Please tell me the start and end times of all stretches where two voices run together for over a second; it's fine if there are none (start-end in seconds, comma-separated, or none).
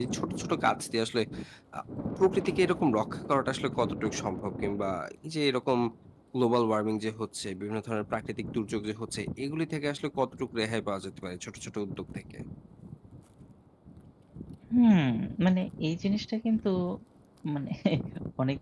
none